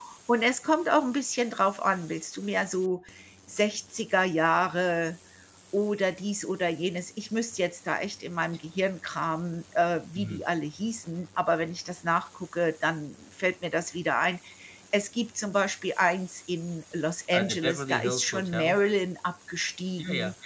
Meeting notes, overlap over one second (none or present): present